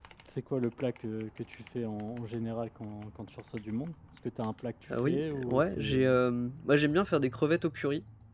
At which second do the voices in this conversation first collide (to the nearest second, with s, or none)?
5 s